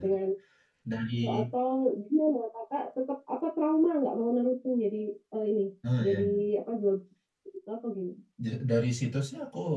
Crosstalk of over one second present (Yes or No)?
No